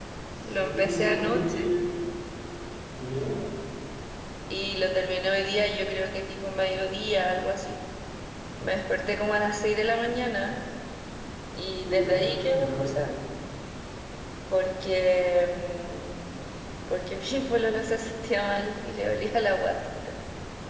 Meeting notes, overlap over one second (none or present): present